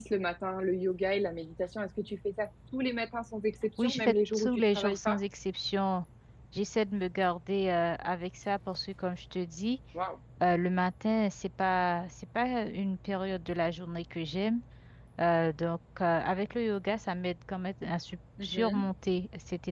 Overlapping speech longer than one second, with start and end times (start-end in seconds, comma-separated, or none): 3.8-5.2